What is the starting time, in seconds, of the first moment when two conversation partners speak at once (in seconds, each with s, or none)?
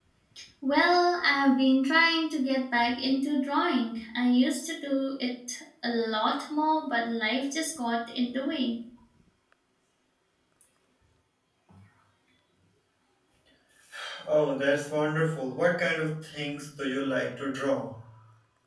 none